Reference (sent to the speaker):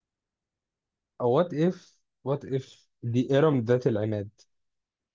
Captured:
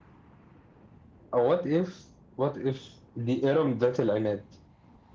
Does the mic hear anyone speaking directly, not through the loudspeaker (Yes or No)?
No